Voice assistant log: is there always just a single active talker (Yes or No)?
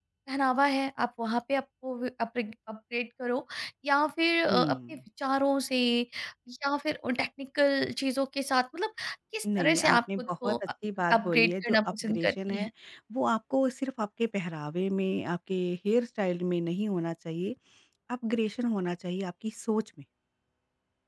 No